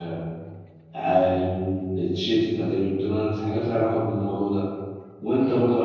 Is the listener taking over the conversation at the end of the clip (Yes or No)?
No